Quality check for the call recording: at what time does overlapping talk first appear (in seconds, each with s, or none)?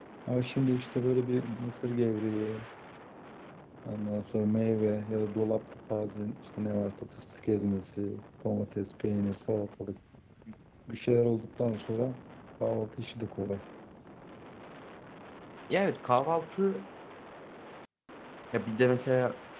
none